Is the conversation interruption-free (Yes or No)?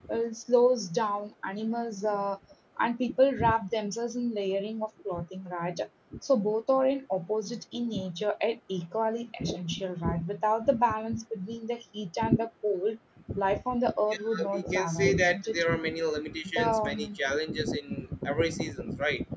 No